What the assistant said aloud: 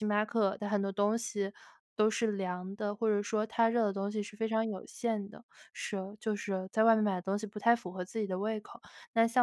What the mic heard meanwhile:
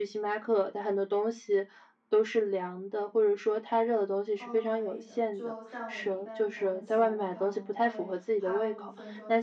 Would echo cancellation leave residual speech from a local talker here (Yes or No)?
Yes